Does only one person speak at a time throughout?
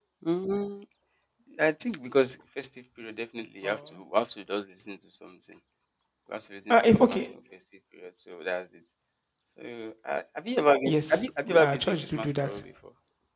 No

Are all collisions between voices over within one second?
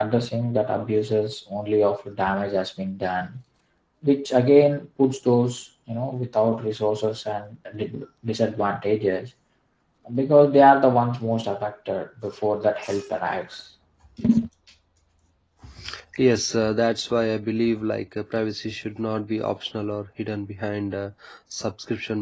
Yes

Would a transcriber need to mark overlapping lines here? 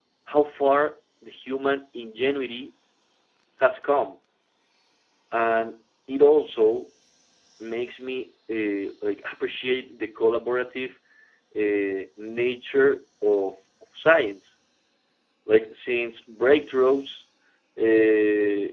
No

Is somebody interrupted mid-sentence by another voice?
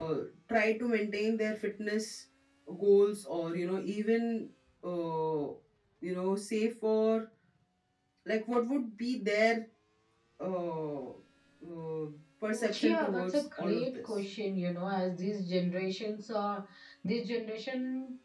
Yes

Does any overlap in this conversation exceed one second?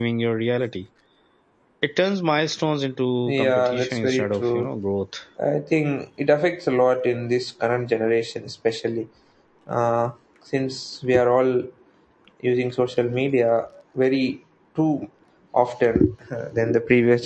Yes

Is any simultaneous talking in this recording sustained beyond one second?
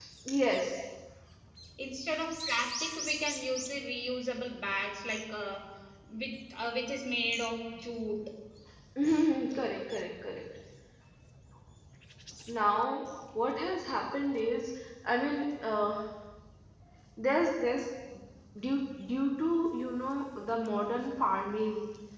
No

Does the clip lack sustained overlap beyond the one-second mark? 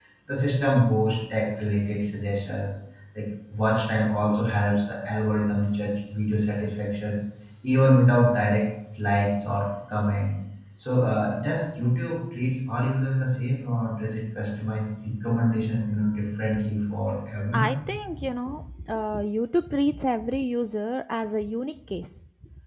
Yes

